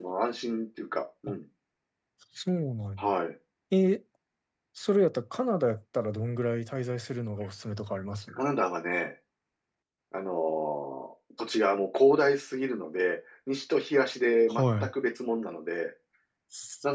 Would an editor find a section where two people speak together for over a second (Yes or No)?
No